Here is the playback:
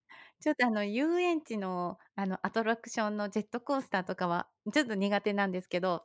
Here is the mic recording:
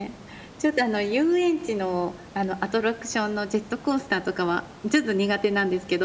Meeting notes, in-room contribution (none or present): none